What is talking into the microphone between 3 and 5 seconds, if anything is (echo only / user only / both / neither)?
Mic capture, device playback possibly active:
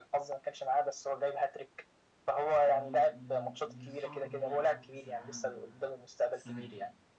both